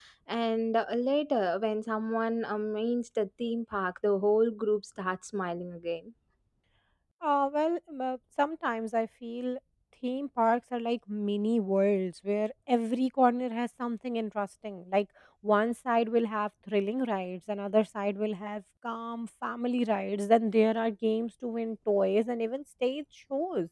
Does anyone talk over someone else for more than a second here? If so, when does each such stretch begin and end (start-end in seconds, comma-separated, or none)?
none